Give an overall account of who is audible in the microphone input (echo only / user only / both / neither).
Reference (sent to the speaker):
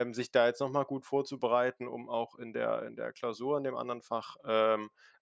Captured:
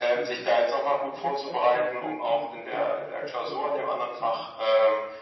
both